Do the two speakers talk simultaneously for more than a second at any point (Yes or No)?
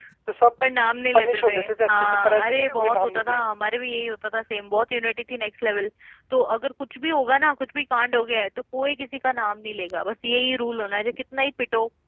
Yes